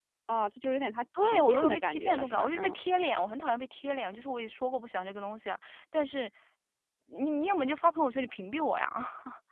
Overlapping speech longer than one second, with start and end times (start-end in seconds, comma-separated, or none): 1.2-2.8